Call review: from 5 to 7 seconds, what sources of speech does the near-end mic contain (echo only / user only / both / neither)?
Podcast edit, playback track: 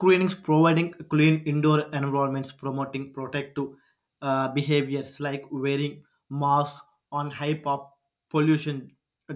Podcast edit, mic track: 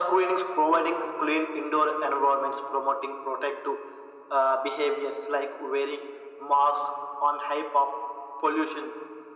echo only